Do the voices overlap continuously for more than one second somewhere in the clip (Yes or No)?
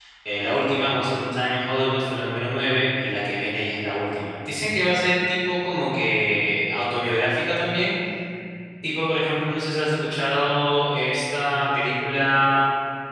No